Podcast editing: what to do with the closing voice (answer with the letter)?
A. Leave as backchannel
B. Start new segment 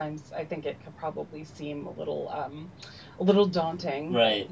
B